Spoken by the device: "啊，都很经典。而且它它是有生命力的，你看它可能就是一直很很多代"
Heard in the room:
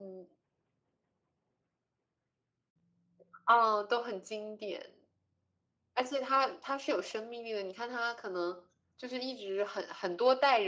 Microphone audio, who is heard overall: echo only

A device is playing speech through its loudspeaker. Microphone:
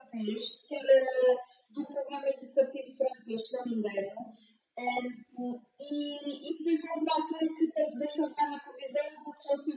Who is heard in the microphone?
echo only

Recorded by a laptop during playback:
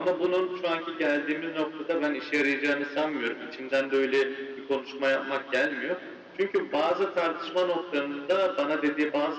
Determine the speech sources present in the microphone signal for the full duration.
echo only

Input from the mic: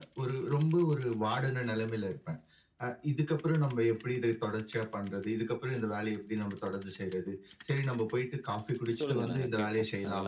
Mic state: both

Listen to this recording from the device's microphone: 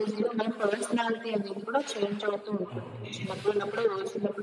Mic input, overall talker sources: both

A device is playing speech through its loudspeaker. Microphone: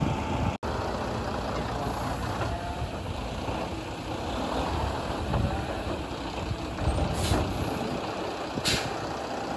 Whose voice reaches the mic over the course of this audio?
neither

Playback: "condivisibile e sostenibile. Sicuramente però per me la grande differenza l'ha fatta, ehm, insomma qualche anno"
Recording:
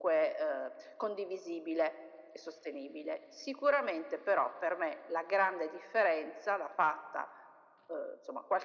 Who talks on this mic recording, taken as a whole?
echo only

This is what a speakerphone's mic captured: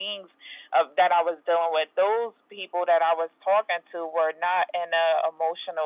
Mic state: echo only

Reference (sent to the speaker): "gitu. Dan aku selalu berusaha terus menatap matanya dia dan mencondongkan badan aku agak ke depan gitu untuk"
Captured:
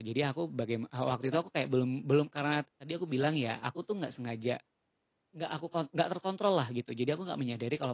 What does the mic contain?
user only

